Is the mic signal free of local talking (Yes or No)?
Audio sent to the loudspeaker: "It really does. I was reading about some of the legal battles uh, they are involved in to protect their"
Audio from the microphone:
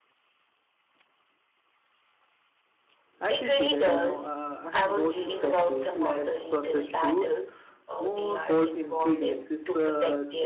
No